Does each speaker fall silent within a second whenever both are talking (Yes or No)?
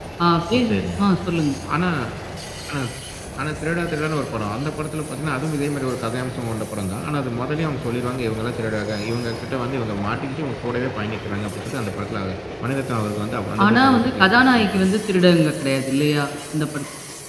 No